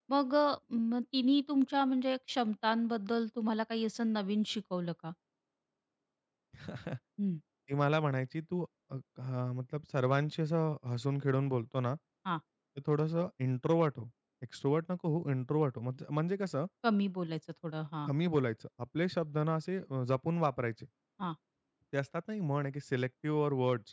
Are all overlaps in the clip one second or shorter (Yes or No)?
Yes